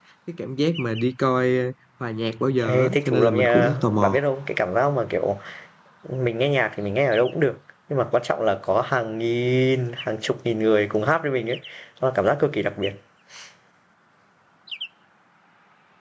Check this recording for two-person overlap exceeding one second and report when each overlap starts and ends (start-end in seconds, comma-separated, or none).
2.6-4.2